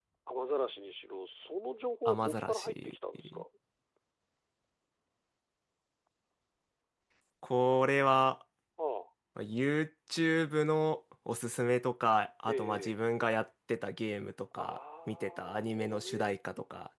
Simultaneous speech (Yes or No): Yes